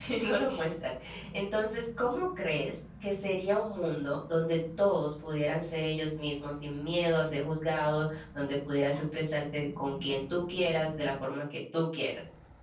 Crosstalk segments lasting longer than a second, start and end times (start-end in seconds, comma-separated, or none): none